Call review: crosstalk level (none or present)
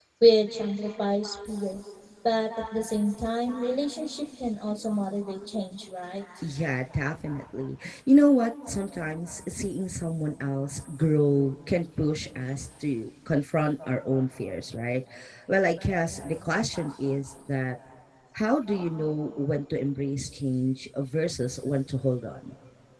none